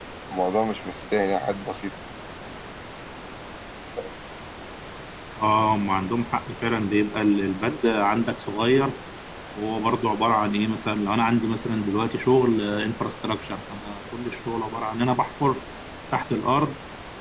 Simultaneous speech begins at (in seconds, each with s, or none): none